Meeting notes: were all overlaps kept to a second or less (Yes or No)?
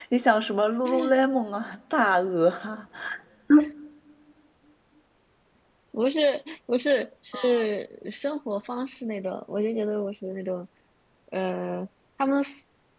Yes